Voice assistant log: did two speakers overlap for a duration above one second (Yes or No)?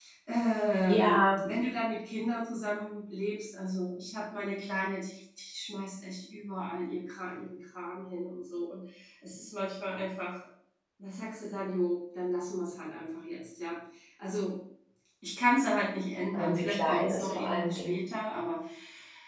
Yes